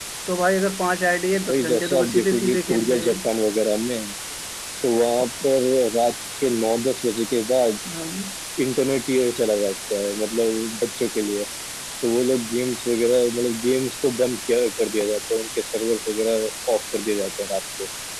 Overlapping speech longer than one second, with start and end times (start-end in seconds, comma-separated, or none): 1.4-3.2